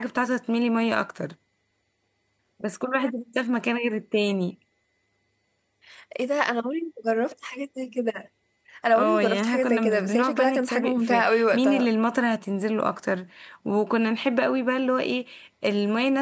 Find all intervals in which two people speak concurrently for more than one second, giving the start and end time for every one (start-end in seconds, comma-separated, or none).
8.9-11.8